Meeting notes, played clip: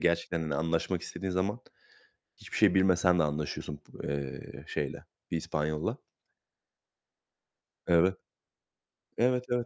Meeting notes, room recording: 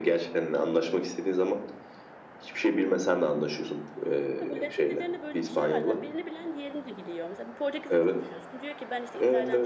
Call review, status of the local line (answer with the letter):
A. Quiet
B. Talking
B